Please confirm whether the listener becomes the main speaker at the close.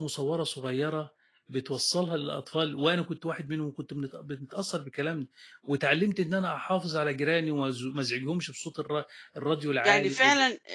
Yes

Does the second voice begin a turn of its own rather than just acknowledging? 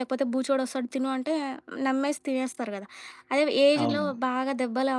No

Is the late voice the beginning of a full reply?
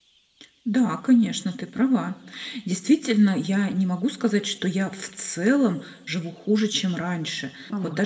No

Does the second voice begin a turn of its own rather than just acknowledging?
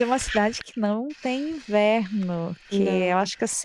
No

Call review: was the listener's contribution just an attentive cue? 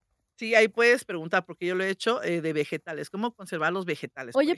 No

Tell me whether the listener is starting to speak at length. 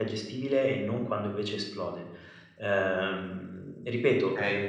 No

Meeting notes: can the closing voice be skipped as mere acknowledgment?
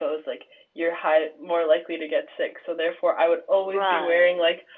Yes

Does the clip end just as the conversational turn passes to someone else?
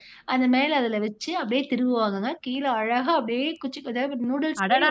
Yes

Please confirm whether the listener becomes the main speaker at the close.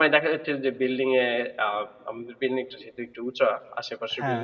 No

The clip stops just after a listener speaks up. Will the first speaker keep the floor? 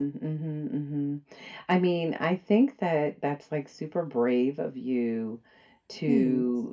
Yes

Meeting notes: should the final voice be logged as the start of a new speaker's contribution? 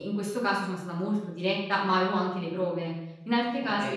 Yes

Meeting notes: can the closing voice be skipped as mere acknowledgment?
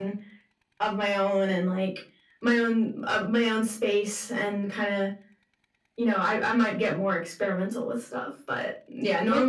Yes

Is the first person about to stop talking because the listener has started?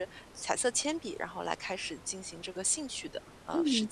Yes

